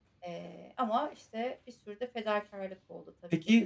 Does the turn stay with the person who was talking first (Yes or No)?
No